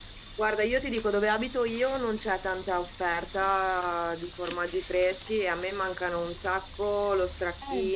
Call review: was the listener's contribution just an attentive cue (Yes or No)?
Yes